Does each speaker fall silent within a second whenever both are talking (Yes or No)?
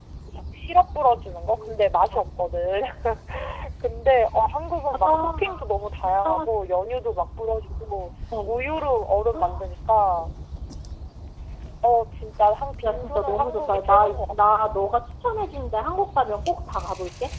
No